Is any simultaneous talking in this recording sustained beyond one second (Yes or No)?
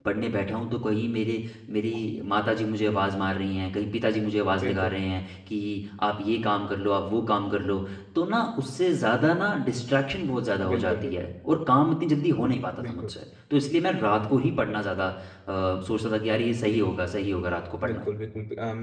No